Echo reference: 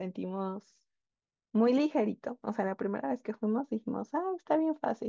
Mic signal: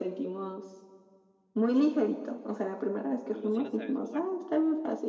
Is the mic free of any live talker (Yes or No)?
No